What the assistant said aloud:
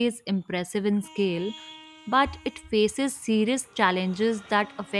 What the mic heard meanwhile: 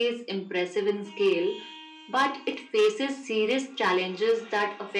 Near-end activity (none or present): none